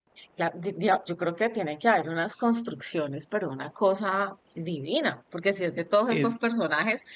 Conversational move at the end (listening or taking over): listening